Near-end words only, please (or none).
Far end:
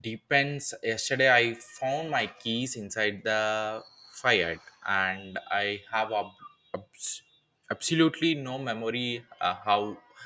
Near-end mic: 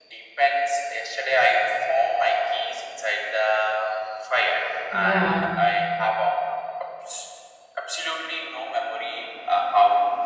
Yeah.